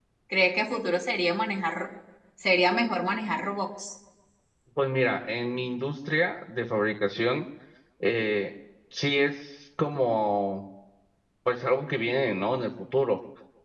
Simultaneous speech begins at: none

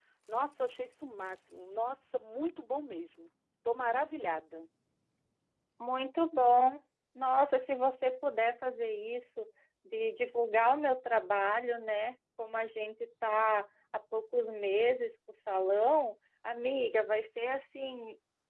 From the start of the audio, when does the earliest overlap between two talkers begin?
none

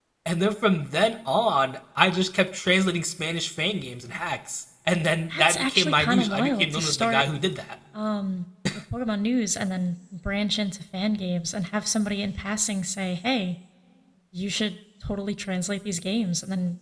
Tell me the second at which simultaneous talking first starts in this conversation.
5.3 s

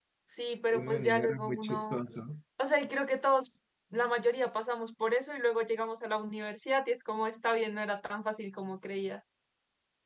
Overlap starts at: 0.7 s

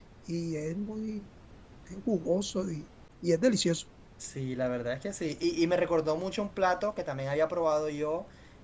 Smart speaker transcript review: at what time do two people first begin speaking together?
none

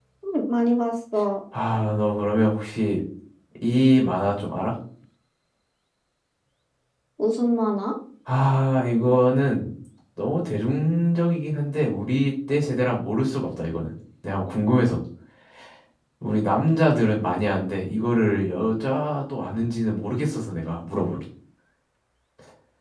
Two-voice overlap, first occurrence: none

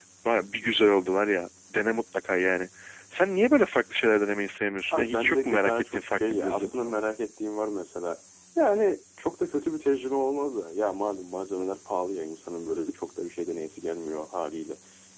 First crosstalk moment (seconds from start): 4.8 s

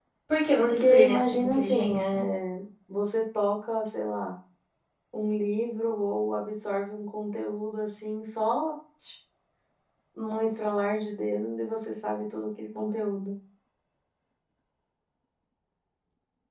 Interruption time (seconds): 0.6 s

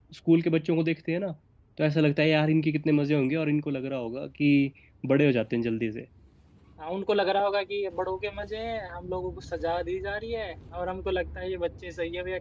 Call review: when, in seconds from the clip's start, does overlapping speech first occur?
none

